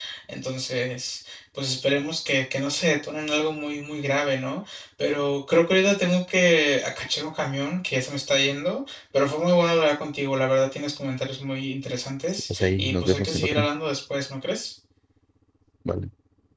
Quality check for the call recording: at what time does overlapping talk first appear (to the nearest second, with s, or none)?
12 s